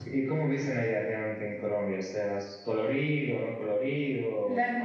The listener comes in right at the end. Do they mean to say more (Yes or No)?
Yes